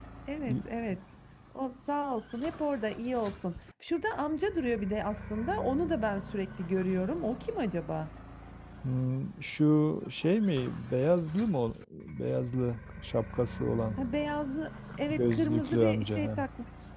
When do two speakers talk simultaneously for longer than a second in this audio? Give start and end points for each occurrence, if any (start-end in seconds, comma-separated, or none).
15.1-16.5